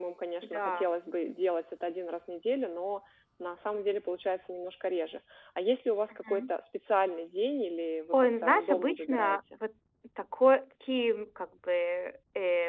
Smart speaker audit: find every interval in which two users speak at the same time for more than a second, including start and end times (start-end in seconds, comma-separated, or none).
8.1-9.6